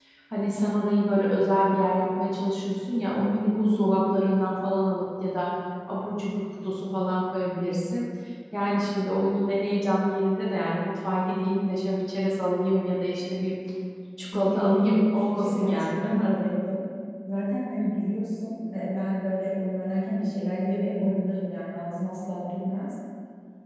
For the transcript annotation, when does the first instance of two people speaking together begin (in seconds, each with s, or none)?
14.3 s